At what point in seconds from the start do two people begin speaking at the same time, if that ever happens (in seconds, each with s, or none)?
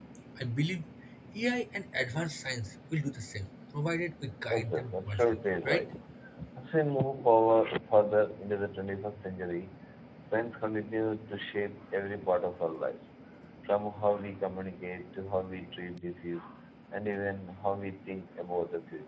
4.5 s